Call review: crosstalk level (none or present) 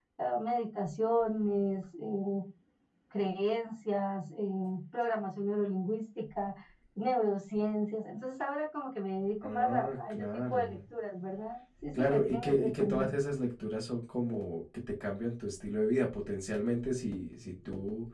present